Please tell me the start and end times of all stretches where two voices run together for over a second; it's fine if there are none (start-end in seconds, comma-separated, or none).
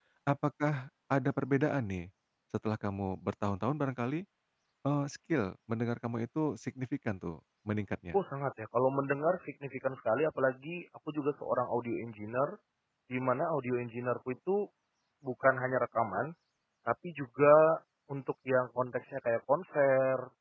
none